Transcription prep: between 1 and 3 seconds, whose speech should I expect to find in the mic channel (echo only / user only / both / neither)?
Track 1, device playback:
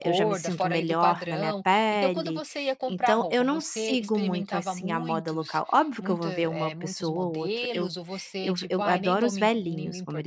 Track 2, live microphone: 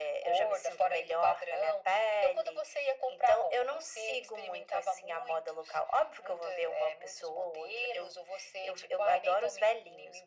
echo only